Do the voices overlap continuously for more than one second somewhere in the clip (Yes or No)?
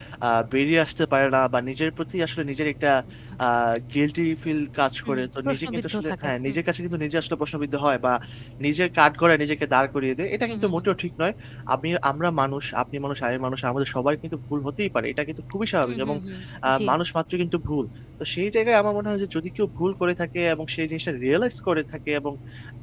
Yes